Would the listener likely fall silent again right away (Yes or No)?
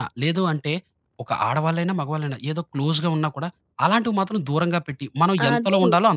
No